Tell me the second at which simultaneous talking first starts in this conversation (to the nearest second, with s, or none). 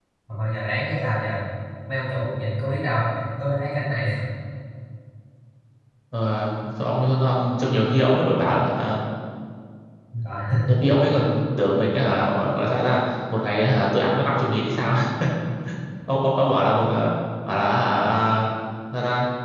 none